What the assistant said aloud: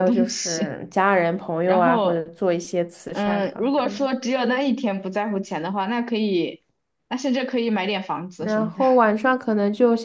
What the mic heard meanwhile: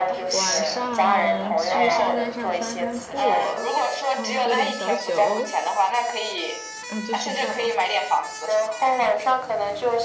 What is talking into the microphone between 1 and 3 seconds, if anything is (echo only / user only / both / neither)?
both